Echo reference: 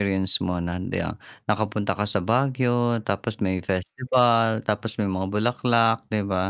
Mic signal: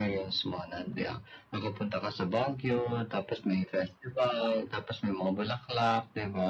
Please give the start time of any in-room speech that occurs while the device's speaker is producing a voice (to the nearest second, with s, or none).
none